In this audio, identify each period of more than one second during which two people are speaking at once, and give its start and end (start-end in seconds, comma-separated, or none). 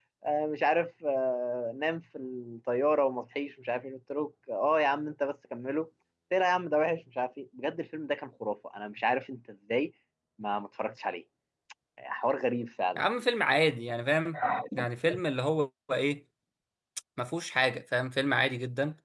none